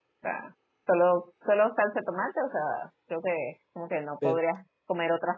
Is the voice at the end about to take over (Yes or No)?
No